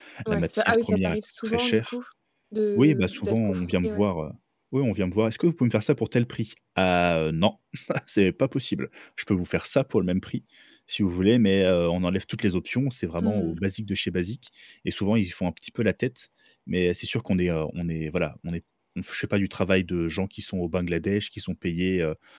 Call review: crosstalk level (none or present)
present